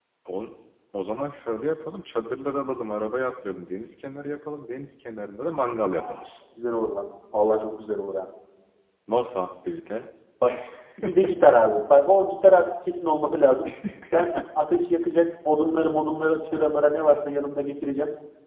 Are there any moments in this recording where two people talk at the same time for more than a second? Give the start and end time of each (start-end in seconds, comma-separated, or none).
none